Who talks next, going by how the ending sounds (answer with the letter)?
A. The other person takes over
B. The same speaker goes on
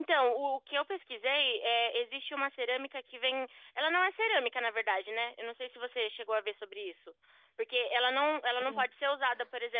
B